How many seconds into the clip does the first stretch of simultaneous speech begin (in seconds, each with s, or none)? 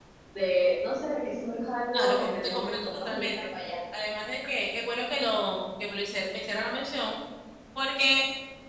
1.9 s